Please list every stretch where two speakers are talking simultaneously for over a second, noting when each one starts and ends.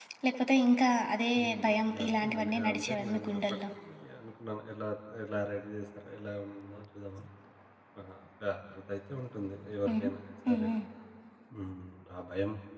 2.0-3.4

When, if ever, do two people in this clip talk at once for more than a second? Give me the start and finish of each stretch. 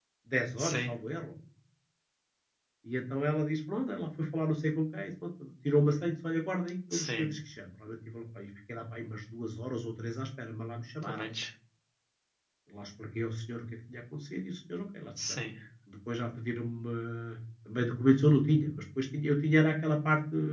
none

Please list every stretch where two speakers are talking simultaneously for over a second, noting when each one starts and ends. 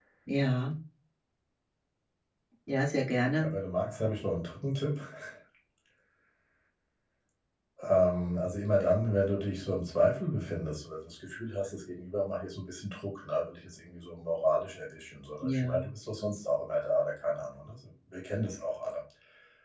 none

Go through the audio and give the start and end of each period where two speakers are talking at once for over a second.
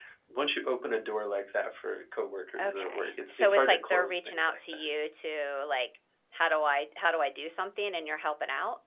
2.6-4.8

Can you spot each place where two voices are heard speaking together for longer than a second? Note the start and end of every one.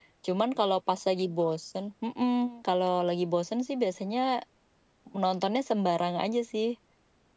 none

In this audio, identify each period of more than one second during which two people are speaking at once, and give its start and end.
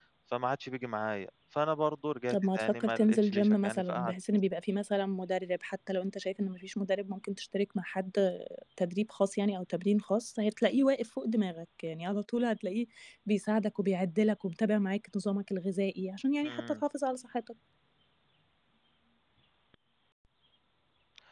2.3-4.1

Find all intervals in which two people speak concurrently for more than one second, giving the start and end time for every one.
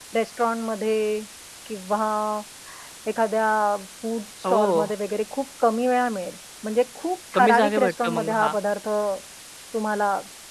7.3-8.5

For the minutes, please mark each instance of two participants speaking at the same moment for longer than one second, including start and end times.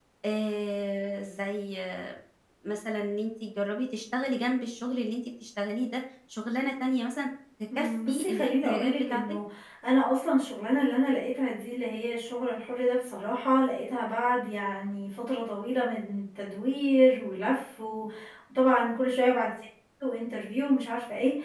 7.8-9.2

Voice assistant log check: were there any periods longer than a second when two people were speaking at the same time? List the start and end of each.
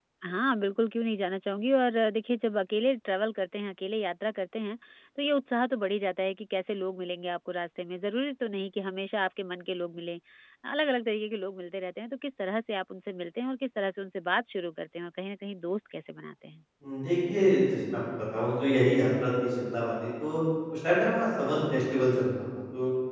none

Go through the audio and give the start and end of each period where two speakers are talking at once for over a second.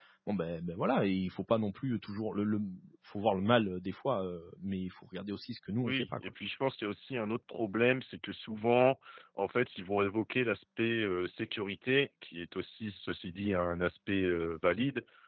none

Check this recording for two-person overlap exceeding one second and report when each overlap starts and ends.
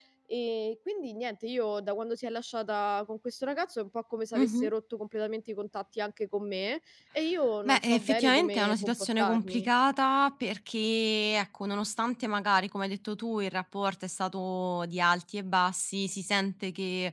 7.6-9.7

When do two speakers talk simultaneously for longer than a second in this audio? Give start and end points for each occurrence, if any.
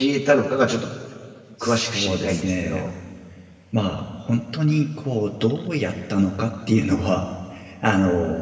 1.6-2.8

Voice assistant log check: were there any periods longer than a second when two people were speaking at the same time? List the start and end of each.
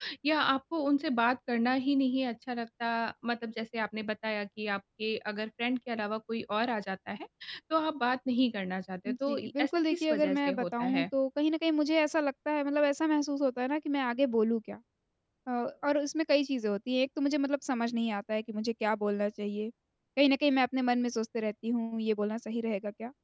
9.1-11.1

